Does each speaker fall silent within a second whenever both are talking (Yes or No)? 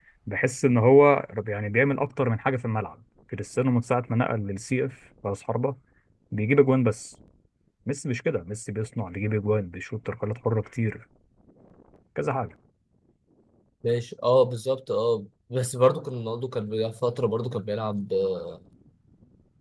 Yes